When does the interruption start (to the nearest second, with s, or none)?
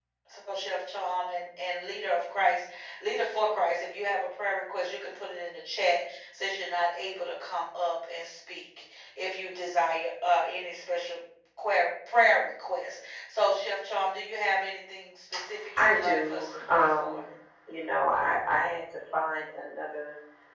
16 s